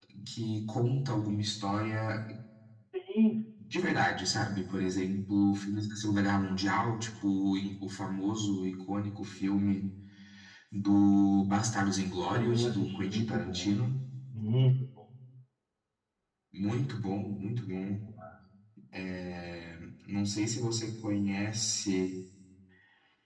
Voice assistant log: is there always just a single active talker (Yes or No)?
No